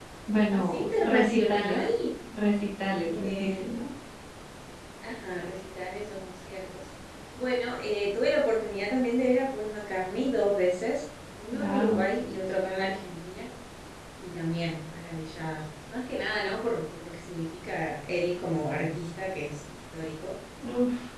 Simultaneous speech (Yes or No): Yes